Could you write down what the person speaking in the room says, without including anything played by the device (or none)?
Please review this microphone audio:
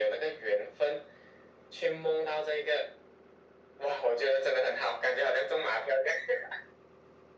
none